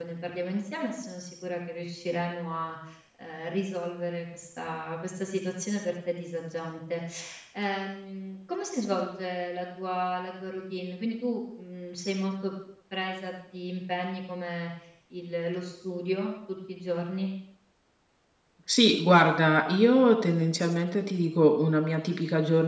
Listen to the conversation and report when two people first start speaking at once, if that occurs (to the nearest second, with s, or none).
none